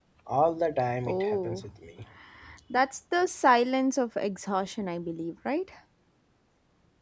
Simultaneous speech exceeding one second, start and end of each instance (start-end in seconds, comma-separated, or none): none